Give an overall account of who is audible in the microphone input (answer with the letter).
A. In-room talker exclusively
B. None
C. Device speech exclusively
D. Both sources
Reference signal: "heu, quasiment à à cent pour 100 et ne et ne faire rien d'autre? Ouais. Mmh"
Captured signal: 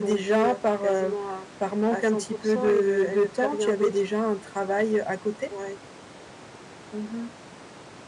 D